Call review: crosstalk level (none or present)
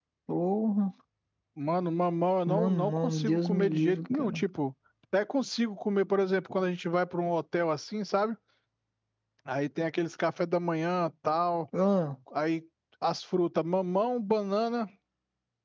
present